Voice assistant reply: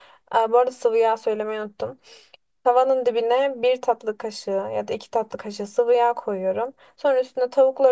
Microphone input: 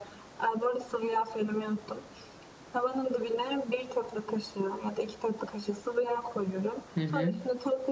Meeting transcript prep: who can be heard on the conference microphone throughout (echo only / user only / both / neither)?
both